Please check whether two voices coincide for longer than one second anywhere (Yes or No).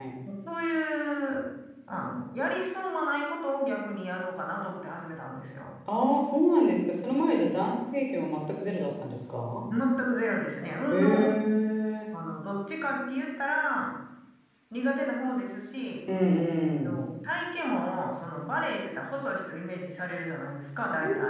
No